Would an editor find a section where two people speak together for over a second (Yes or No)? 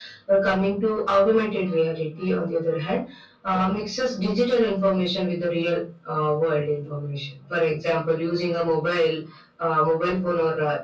No